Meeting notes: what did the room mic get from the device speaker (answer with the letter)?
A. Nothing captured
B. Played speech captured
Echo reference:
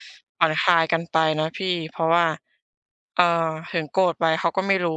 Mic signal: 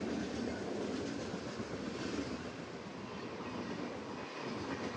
A